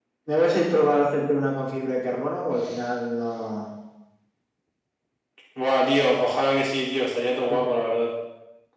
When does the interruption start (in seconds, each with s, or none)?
none